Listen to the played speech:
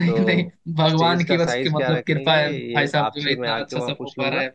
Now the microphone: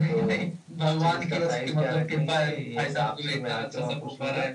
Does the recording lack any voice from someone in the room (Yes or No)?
Yes